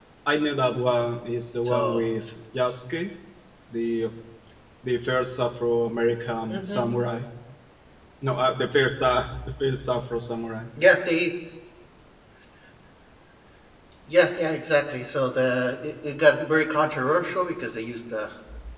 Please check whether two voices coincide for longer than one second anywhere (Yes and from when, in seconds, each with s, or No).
No